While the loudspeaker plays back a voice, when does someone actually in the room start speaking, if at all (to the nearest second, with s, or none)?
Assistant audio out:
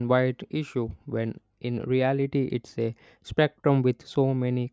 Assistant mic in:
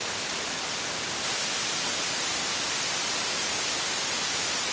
none